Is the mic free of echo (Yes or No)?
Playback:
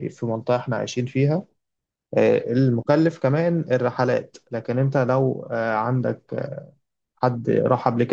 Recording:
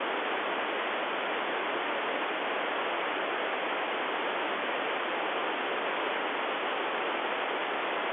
Yes